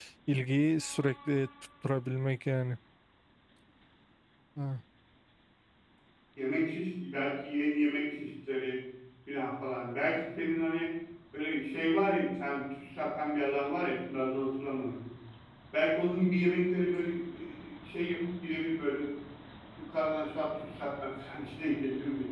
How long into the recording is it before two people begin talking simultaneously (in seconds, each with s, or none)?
none